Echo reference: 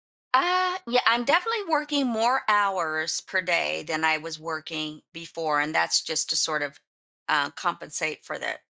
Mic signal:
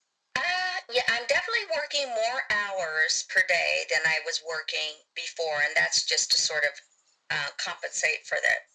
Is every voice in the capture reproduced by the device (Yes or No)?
Yes